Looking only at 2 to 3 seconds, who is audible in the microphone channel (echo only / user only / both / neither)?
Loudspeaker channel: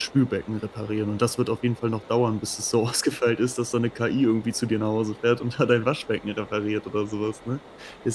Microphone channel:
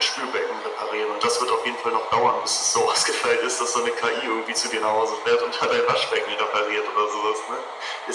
echo only